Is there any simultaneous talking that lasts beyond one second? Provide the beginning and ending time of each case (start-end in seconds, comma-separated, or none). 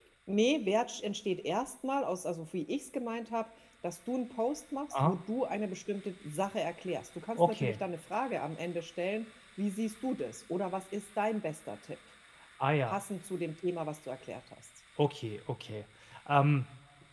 none